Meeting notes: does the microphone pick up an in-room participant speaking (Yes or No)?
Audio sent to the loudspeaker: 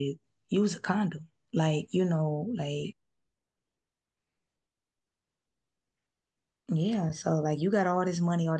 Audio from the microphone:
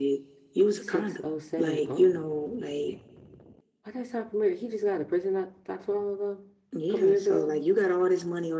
Yes